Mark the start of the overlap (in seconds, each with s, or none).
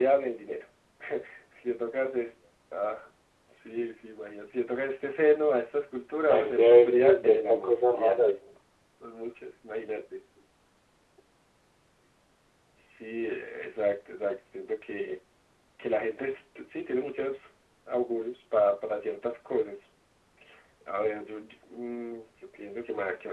6.3 s